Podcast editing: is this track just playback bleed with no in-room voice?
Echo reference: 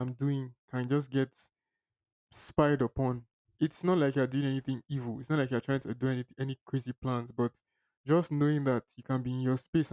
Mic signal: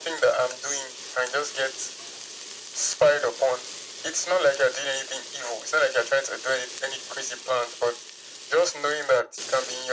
Yes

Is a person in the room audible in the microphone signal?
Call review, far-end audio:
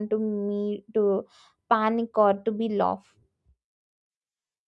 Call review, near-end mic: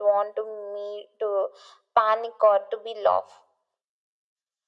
No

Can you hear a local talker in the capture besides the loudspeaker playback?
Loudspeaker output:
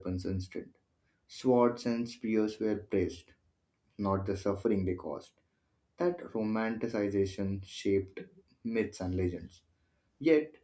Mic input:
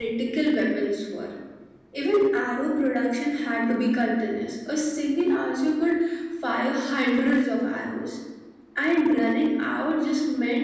Yes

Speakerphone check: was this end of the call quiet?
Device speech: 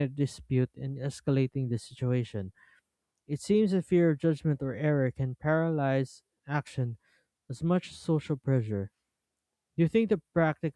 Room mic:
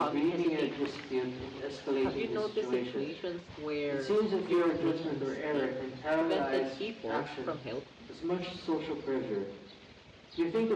No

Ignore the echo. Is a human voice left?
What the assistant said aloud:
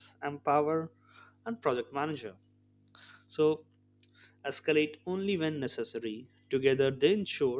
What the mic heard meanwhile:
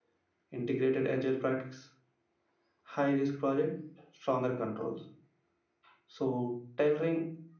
Yes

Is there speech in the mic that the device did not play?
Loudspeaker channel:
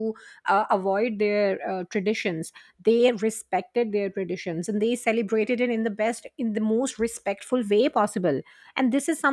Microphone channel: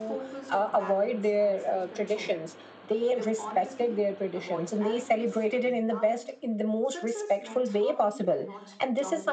Yes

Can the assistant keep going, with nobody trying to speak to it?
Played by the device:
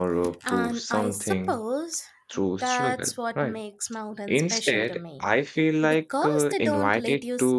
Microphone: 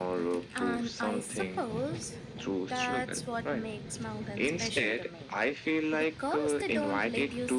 Yes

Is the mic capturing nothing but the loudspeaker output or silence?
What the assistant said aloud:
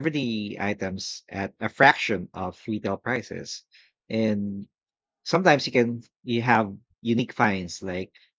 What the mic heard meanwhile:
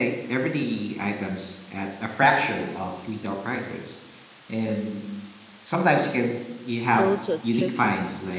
No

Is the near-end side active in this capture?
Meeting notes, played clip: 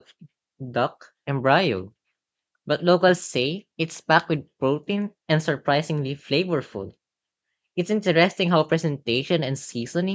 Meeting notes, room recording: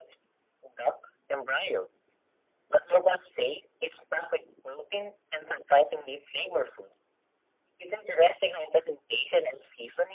No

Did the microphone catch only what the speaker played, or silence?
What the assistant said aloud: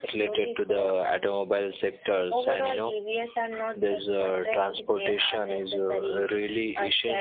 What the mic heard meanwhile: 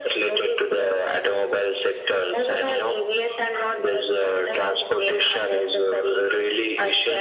Yes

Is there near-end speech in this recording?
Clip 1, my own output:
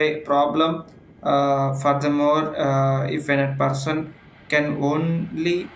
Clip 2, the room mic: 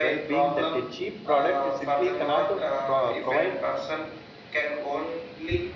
Yes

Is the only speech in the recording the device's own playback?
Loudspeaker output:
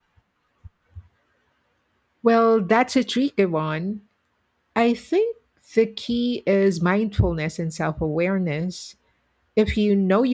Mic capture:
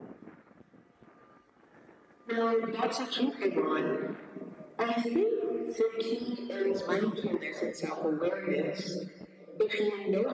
Yes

